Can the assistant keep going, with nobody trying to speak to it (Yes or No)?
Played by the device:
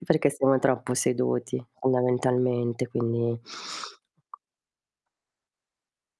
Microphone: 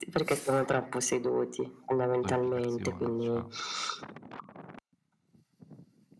No